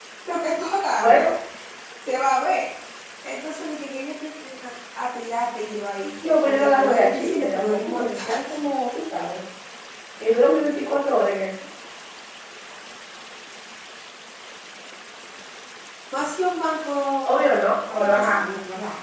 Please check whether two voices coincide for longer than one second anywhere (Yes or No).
Yes